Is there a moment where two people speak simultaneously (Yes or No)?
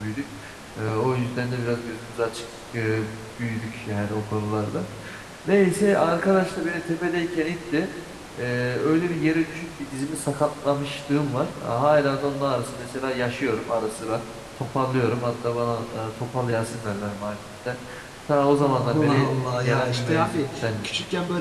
Yes